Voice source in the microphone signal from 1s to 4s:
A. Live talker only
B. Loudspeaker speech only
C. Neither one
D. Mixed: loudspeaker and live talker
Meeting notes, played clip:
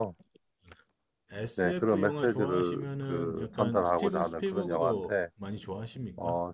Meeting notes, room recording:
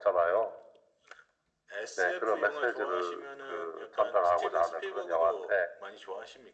B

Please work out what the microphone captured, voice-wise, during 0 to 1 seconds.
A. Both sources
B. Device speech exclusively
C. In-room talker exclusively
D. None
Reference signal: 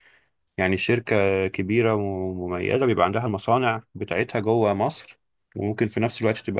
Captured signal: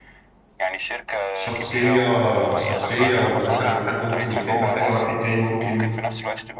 B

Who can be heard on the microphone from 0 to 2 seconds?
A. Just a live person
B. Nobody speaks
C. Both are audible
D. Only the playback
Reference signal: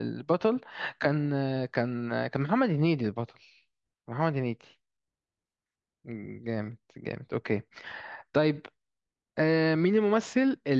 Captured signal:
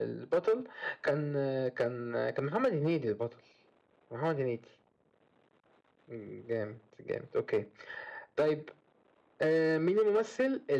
D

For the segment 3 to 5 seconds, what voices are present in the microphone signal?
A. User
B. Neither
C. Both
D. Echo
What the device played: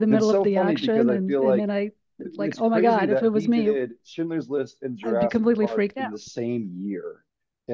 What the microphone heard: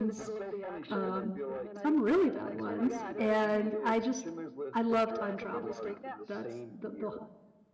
C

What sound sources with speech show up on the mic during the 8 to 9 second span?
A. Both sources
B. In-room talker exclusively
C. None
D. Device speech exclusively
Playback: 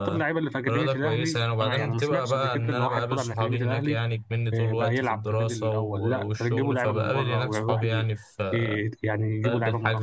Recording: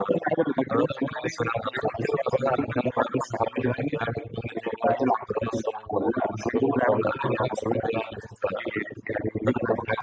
D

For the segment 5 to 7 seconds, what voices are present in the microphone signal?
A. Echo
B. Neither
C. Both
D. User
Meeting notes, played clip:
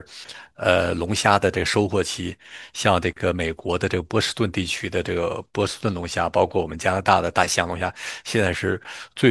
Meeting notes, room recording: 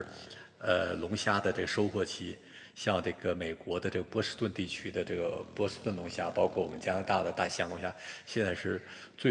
A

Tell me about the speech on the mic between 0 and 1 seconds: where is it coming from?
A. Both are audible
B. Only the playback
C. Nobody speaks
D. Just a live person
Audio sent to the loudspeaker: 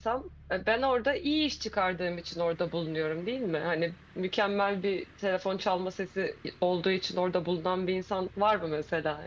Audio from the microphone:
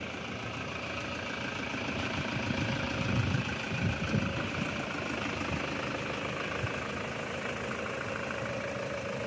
C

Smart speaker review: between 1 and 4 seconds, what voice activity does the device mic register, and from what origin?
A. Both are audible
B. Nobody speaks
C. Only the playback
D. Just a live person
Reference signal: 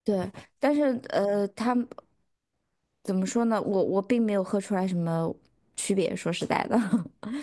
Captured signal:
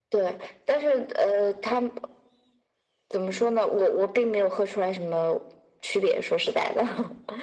C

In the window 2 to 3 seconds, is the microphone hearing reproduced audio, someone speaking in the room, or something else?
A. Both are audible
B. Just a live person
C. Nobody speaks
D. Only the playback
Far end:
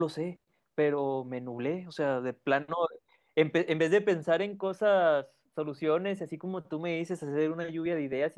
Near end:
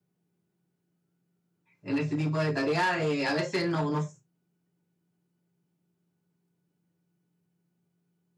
B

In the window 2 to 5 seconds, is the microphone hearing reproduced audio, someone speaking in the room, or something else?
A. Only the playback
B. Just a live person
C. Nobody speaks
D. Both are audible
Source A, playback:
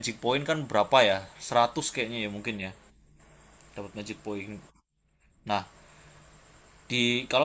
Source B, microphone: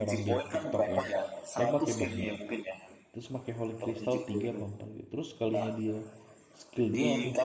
D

